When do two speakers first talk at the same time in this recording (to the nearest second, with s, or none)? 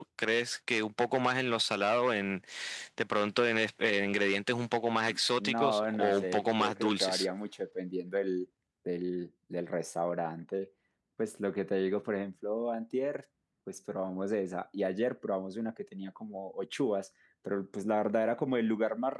5 s